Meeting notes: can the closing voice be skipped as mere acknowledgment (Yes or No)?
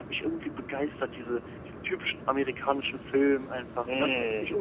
No